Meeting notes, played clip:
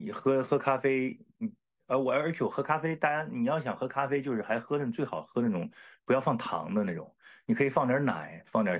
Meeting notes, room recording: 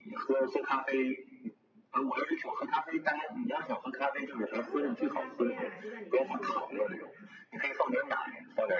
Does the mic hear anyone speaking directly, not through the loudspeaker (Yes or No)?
Yes